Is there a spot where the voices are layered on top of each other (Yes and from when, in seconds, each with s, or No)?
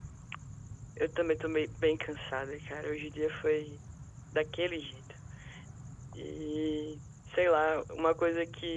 No